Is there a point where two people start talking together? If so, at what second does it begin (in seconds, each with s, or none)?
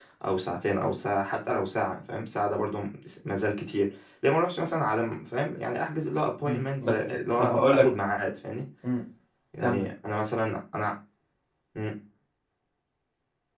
6.5 s